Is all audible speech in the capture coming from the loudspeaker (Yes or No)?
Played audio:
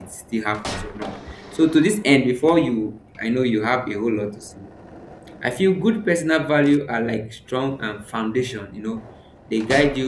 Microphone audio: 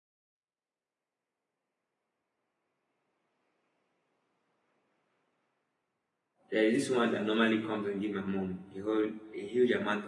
No